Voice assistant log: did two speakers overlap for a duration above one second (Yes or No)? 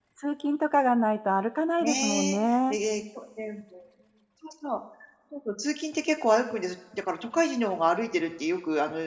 No